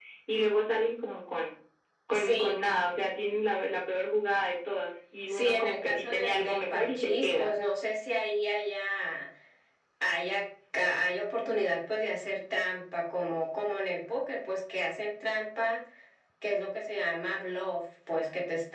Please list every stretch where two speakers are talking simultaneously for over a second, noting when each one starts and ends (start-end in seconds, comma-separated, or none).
5.3-7.5